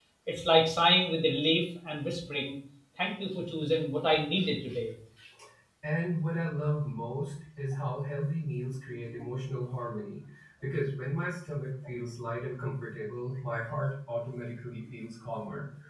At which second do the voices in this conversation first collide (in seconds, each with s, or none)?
none